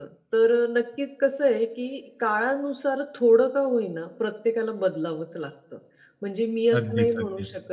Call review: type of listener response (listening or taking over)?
listening